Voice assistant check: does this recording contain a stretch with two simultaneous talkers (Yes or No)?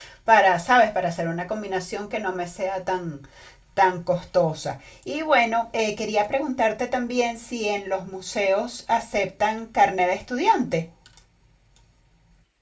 No